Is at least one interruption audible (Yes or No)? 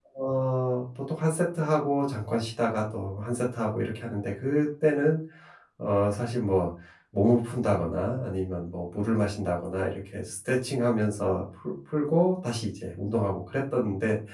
No